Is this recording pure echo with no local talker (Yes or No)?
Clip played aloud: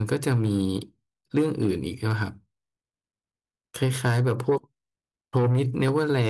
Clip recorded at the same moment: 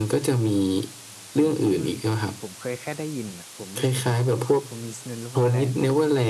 No